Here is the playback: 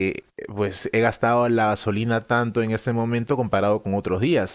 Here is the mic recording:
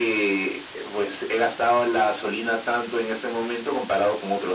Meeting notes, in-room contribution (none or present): none